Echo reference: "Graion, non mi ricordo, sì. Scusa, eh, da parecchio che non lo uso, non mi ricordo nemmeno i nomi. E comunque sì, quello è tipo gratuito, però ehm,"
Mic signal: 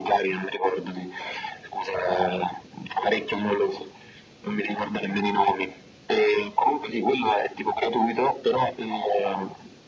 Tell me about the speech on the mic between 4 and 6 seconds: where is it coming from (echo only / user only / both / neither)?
echo only